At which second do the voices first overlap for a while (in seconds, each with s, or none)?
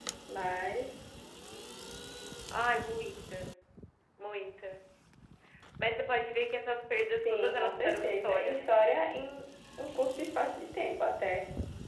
7.2 s